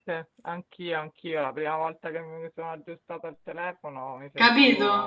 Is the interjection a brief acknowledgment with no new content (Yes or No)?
Yes